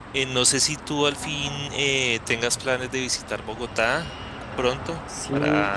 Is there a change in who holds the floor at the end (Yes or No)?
Yes